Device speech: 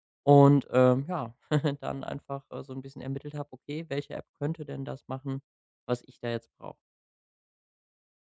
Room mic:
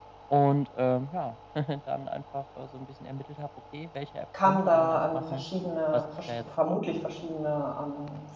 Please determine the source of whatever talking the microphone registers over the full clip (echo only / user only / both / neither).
both